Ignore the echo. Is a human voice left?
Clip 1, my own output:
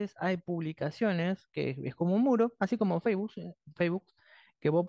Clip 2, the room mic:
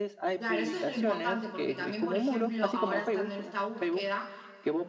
Yes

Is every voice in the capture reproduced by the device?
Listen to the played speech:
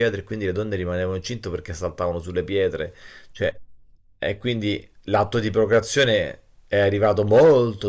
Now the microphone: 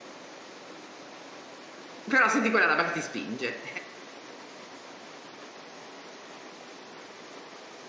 No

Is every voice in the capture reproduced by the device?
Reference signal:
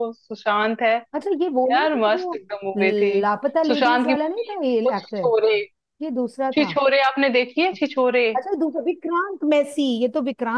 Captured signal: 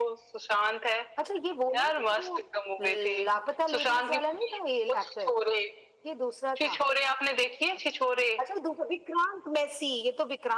Yes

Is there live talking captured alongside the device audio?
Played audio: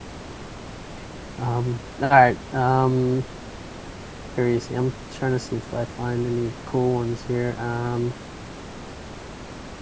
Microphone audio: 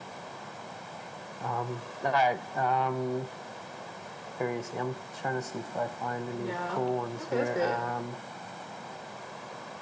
Yes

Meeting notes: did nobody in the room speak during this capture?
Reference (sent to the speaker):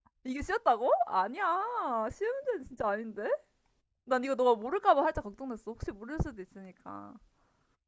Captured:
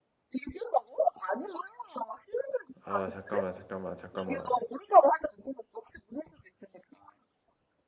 No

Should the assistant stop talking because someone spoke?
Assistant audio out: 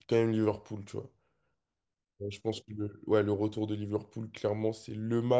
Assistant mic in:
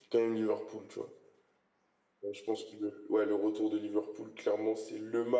No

